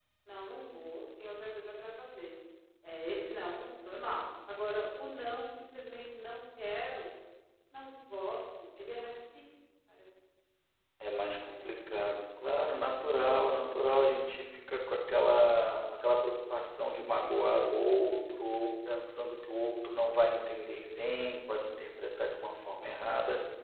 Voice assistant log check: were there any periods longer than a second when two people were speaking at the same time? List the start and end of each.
none

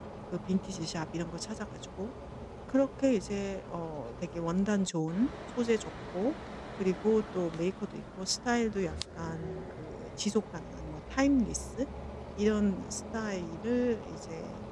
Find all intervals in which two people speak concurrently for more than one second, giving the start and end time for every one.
none

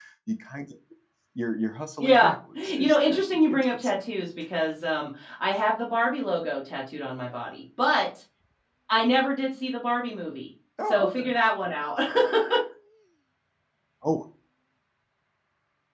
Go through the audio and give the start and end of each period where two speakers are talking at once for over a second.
2.0-4.0

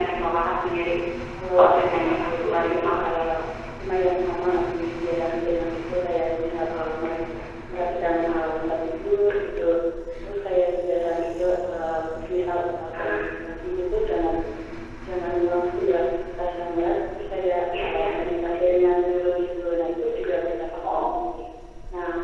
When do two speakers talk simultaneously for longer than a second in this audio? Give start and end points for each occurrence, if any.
1.5-3.2

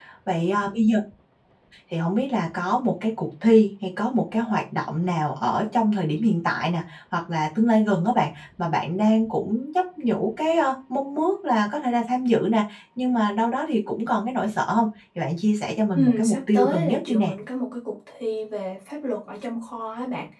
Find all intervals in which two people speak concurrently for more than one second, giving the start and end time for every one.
15.9-17.3

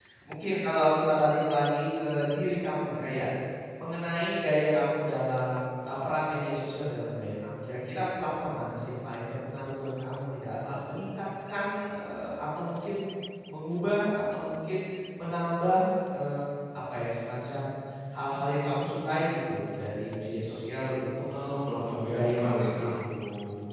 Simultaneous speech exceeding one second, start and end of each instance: 21.7-23.1

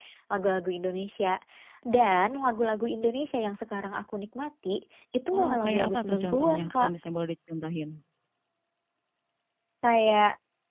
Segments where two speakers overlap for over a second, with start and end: 5.4-6.9

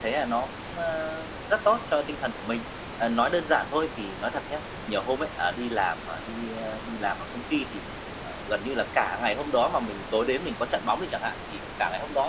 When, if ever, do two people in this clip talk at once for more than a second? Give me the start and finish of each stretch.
none

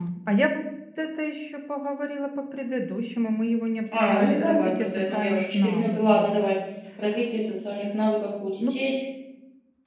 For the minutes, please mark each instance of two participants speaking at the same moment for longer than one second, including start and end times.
4.0-6.3

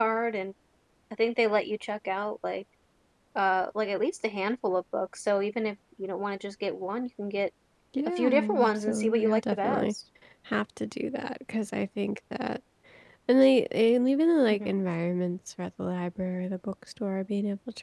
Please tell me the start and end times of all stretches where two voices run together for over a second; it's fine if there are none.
8.1-9.9

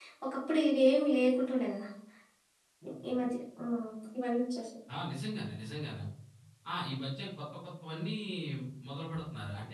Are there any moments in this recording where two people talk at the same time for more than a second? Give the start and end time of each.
none

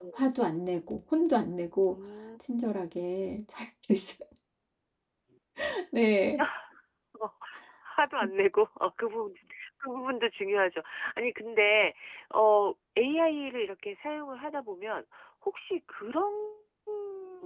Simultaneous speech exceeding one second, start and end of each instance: none

